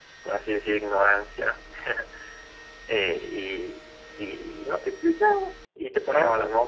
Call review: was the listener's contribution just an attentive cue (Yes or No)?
Yes